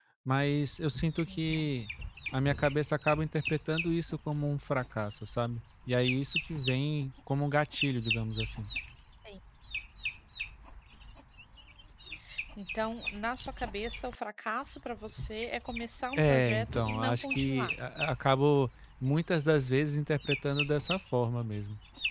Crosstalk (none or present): present